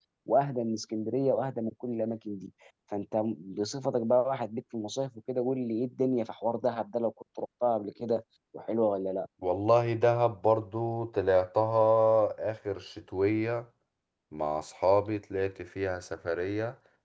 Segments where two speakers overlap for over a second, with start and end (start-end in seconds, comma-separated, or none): none